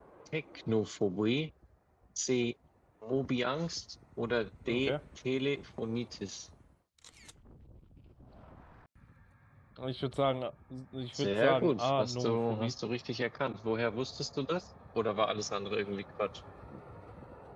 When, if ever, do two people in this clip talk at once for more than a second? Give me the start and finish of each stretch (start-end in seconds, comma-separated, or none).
11.1-12.7